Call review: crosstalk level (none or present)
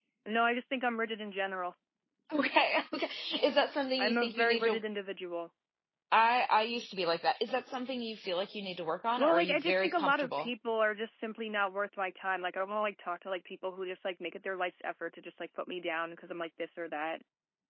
present